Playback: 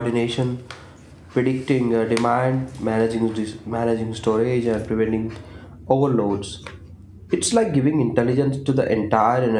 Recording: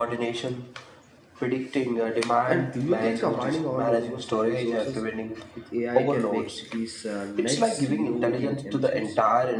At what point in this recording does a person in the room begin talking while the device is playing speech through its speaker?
2 s

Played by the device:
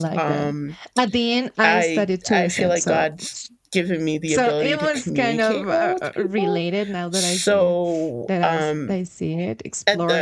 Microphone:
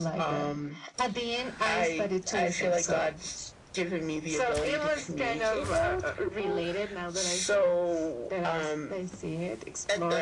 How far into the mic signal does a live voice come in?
none

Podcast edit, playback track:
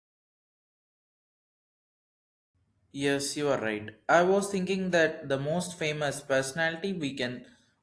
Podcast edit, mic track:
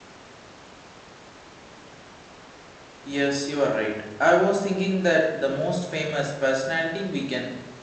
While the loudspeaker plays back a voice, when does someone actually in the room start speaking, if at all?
none

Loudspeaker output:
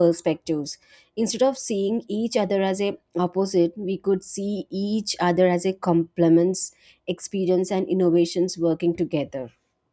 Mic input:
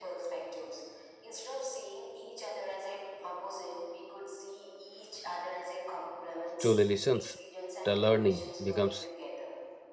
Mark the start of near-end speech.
7 s

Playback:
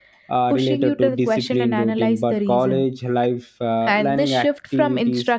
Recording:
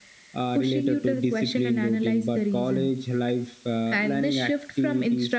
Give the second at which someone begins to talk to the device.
none

